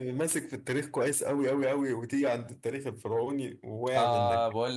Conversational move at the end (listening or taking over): taking over